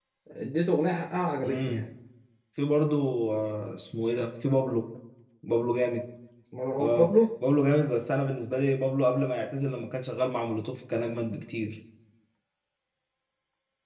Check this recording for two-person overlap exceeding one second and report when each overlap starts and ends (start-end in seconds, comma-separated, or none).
none